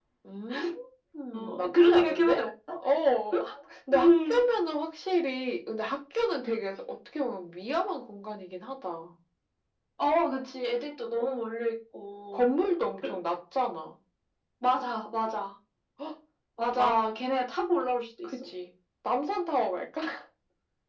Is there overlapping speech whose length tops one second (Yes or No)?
Yes